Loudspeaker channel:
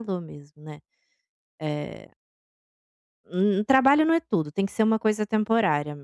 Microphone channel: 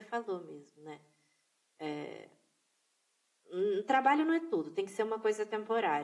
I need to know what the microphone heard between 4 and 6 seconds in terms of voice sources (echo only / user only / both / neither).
echo only